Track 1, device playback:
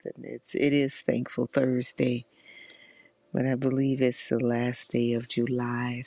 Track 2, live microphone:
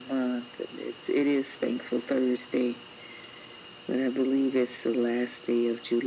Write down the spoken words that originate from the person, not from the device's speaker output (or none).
none